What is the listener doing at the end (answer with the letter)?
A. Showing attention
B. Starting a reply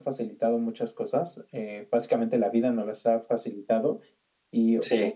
A